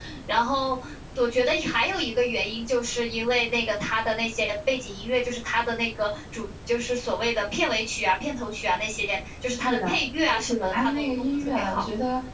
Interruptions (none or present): present